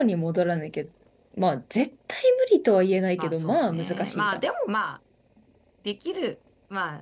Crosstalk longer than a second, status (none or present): present